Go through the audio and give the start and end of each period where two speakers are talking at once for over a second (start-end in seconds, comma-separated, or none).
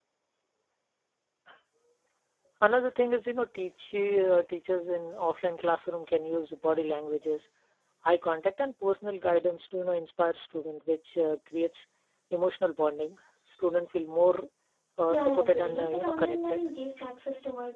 15.1-16.6